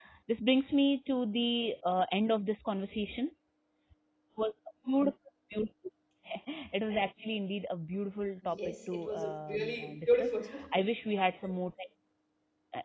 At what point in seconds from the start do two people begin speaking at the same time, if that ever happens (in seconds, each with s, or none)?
8.4 s